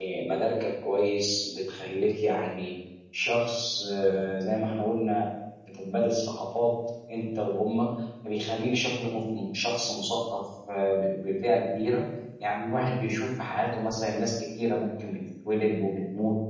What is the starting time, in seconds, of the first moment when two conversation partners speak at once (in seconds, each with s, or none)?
none